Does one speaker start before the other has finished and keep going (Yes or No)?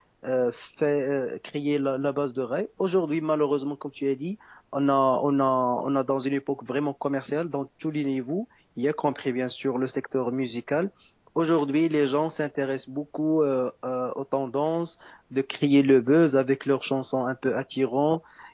No